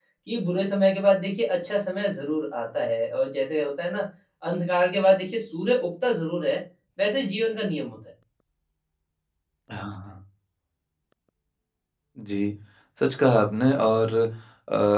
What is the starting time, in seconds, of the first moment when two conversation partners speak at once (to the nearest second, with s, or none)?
none